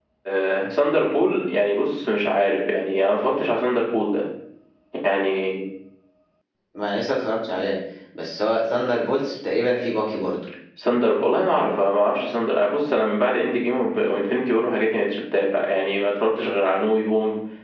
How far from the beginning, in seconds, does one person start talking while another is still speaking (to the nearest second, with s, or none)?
none